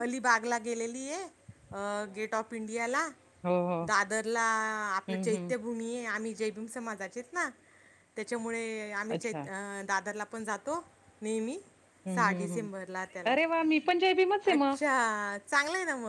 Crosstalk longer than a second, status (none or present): none